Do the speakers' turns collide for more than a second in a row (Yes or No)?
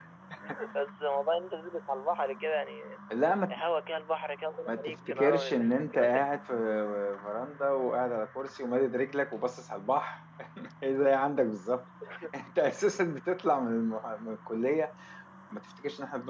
Yes